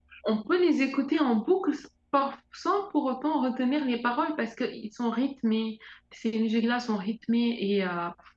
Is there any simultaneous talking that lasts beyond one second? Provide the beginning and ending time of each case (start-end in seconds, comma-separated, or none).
none